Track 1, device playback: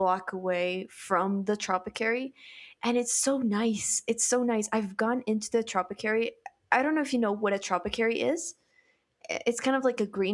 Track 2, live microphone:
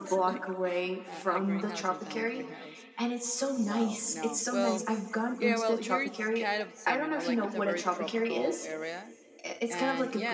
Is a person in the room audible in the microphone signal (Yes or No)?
Yes